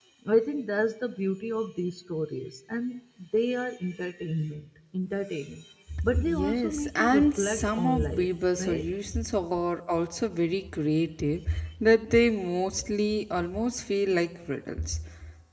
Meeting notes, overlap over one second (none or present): present